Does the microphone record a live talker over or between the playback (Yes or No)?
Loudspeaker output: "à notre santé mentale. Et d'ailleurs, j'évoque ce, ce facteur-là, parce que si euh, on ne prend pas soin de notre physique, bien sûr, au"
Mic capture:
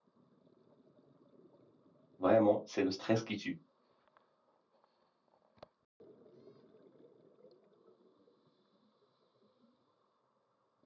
Yes